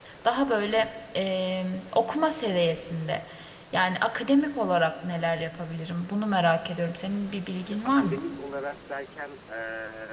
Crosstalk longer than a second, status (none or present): none